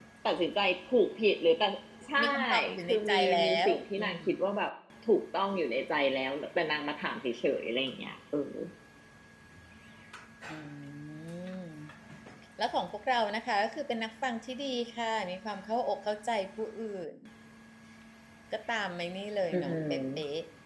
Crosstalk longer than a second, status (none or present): present